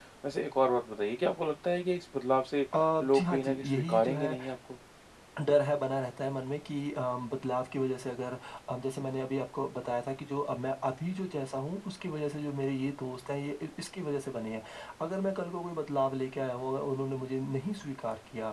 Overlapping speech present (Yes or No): Yes